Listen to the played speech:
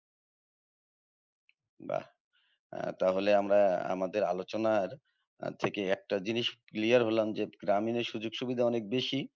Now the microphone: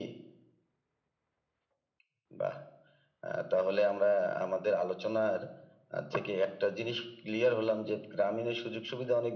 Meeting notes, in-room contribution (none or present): none